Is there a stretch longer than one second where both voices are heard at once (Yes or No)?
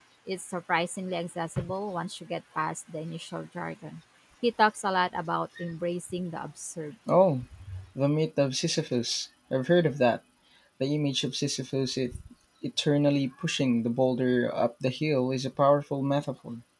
No